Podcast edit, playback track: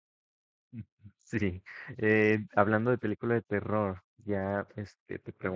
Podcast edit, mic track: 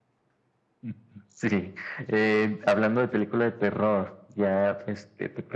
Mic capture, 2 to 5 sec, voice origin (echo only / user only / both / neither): echo only